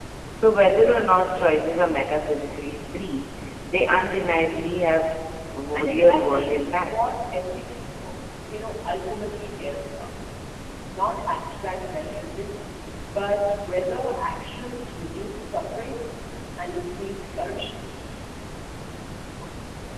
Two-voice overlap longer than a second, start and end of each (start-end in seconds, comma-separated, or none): 5.7-6.9